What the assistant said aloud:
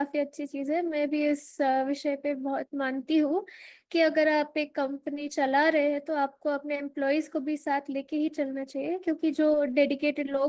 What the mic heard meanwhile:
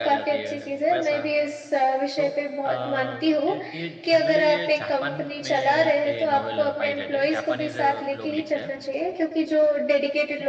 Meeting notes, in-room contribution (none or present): present